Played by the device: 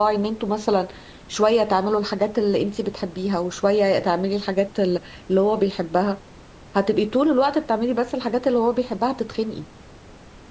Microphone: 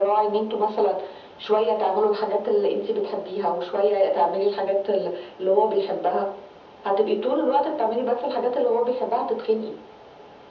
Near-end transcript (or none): none